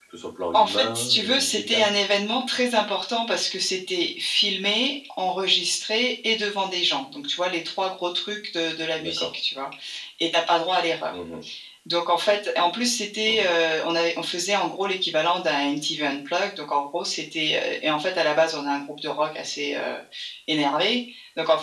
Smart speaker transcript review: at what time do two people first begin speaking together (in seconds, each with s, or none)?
0.5 s